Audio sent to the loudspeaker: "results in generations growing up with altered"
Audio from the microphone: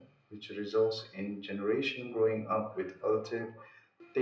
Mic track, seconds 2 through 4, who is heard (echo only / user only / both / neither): echo only